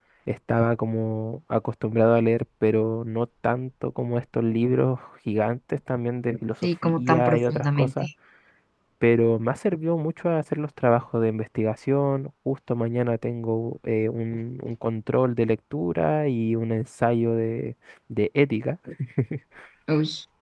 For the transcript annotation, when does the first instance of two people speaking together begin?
6.6 s

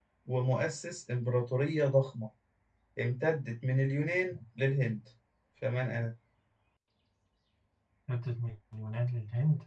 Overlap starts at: none

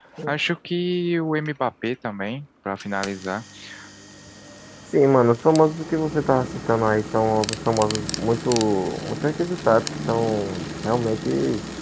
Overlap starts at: none

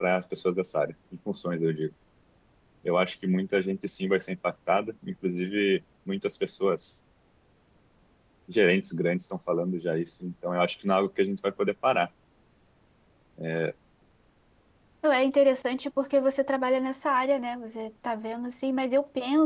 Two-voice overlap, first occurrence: none

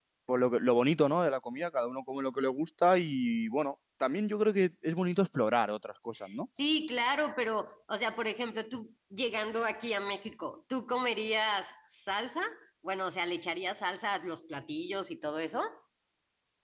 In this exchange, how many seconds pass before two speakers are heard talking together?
none

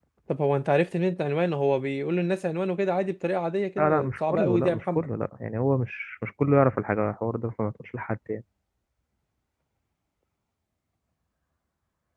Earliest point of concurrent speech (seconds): 3.8 s

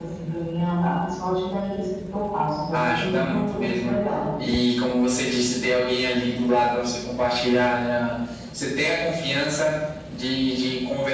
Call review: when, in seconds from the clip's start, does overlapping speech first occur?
2.7 s

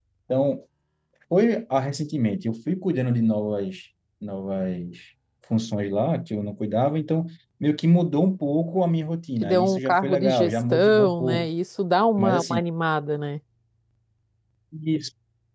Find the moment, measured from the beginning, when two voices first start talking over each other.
9.4 s

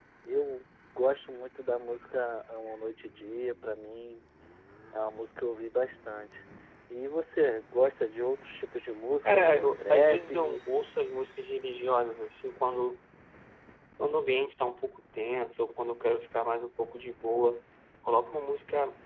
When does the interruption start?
9.2 s

